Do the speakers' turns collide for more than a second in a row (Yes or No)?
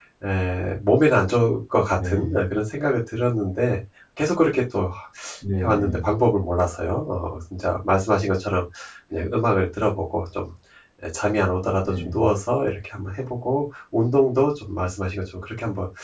No